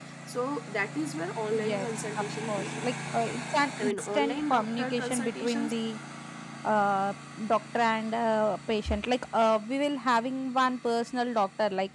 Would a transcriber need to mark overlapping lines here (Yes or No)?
Yes